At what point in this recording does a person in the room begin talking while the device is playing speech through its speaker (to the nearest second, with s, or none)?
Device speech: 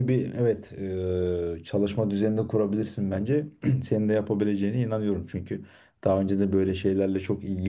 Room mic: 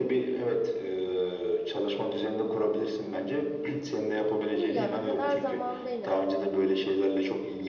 5 s